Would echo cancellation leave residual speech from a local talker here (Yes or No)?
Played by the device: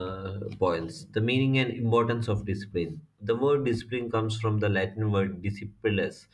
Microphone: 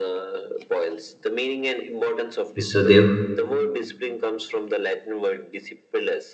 Yes